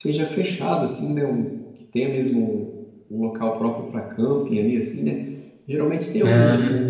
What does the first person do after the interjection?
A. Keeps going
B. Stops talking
A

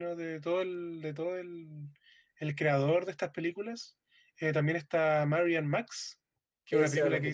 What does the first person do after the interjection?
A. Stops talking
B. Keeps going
A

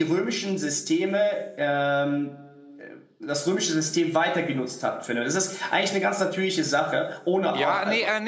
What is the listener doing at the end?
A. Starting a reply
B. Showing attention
A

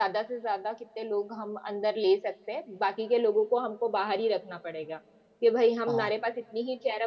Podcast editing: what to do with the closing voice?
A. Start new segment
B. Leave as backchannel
B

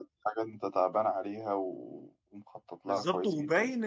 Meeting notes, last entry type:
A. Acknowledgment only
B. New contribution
B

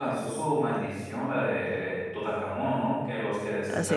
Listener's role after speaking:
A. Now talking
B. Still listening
B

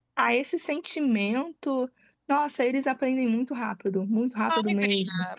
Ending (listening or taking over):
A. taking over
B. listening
A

